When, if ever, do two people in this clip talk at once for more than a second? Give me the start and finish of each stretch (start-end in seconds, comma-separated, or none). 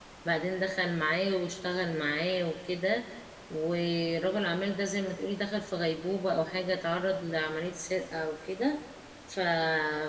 none